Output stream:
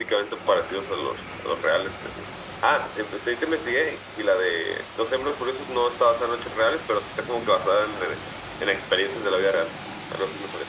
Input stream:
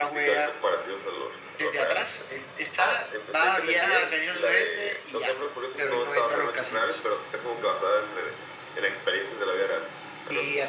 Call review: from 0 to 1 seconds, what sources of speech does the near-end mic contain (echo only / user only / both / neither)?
both